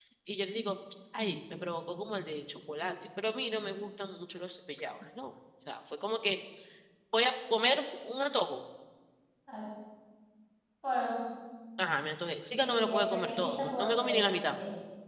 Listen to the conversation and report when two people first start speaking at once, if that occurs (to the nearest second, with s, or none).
13 s